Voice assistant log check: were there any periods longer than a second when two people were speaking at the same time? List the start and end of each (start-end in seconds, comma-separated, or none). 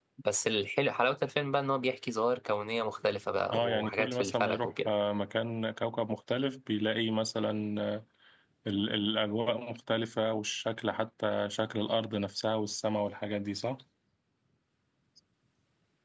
3.5-4.9